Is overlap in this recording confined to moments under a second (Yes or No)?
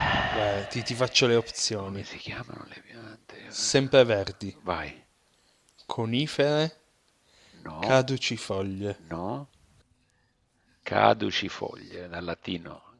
Yes